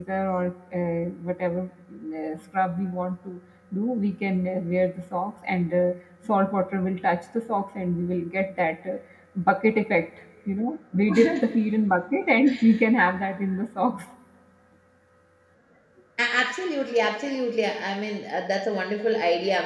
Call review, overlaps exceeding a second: none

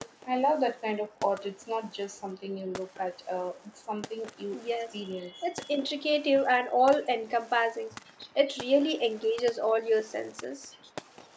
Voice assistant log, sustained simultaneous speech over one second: none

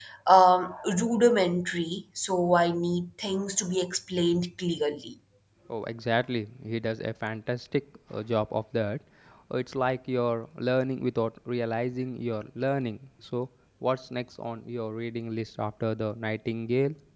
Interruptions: none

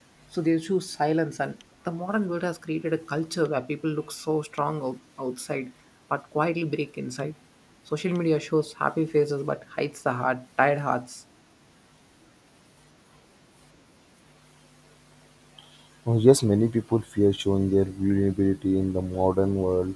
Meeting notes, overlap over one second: none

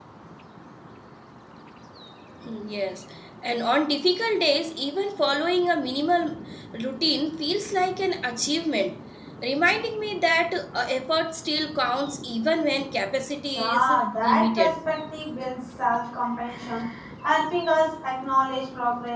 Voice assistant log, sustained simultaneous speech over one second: present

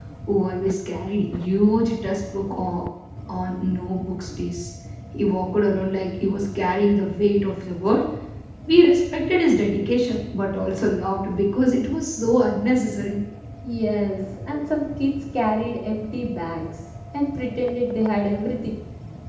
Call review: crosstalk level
none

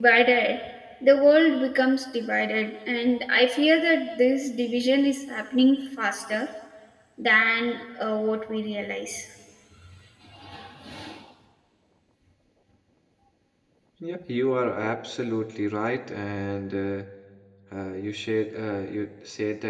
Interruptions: none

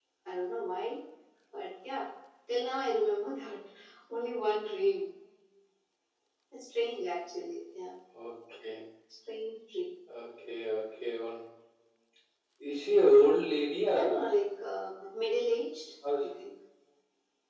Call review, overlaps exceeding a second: none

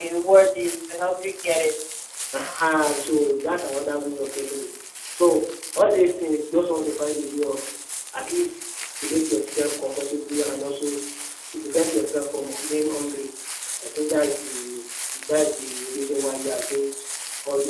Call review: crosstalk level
none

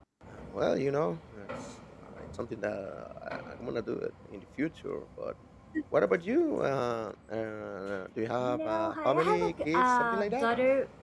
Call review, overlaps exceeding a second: present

